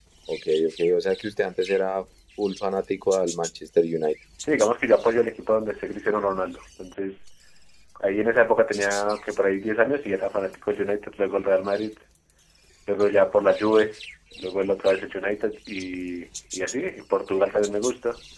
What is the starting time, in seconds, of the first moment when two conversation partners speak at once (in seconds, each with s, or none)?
none